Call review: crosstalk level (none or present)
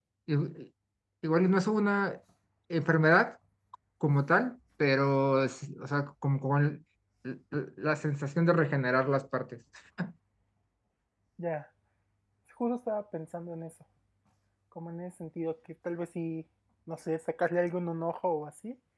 none